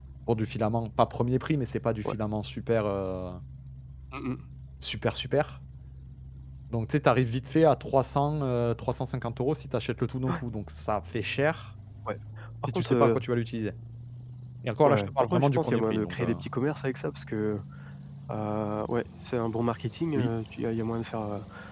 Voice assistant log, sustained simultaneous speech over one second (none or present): present